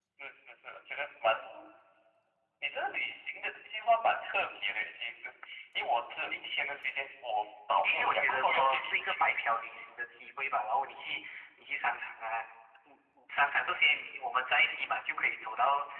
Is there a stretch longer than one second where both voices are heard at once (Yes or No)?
Yes